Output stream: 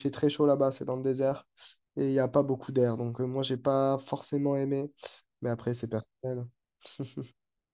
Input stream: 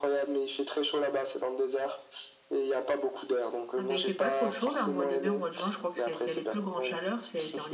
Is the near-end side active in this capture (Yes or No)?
Yes